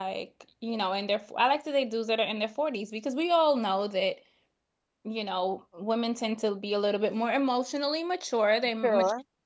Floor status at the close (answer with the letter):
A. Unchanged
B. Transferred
A